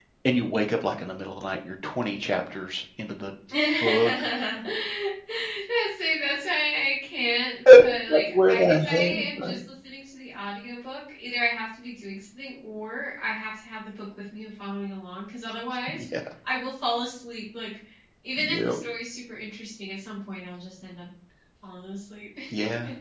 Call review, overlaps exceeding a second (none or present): present